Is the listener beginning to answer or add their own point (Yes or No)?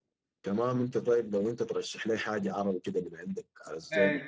Yes